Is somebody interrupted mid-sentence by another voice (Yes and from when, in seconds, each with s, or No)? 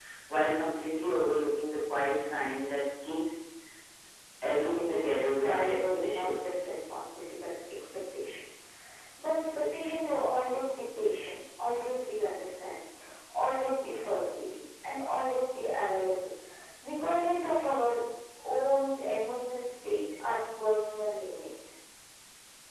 Yes, from 4.5 s